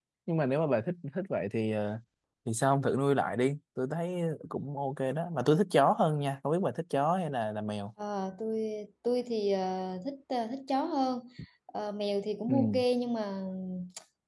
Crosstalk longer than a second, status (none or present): none